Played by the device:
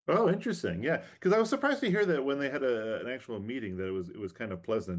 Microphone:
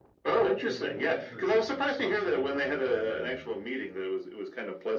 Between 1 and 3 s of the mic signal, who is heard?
both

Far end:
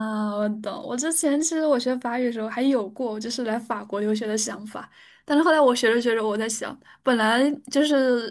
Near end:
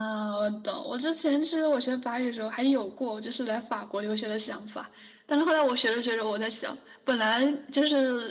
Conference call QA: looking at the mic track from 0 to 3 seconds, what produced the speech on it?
echo only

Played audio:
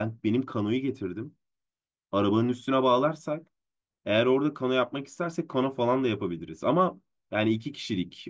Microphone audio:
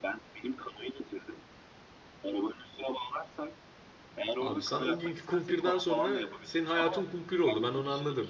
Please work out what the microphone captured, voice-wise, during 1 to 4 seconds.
echo only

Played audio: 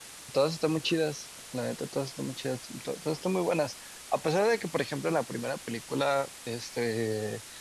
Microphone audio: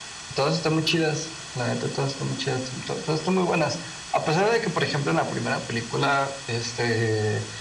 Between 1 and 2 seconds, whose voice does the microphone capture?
echo only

